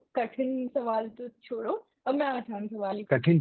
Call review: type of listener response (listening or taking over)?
taking over